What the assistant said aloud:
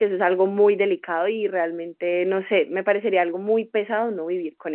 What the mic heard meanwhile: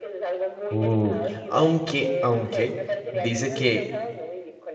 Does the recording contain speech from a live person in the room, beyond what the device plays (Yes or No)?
Yes